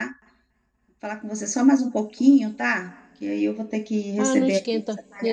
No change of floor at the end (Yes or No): No